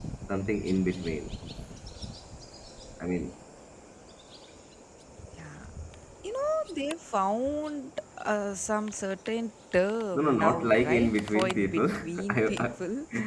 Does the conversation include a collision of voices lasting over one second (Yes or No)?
Yes